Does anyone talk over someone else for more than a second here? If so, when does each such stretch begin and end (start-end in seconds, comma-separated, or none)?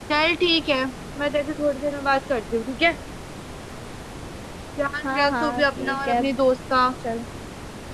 5.0-6.2